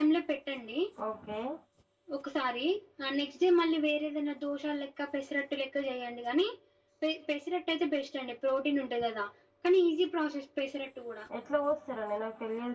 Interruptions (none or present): none